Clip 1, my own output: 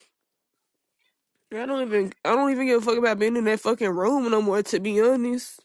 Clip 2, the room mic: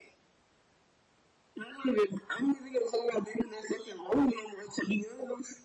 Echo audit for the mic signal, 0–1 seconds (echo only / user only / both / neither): neither